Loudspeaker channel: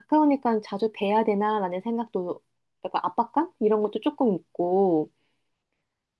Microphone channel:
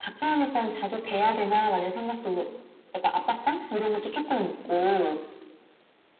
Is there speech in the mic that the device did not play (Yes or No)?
No